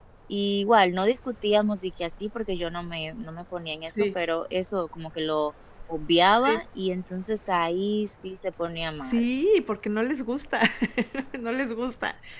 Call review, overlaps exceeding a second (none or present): none